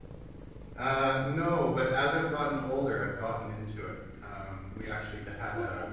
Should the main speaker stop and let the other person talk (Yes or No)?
No